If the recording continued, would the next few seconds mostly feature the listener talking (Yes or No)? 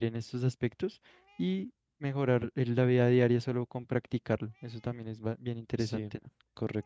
Yes